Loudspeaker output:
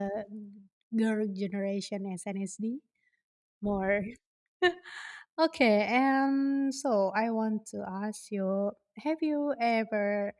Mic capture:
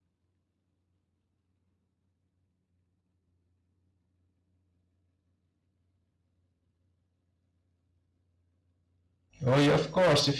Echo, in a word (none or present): none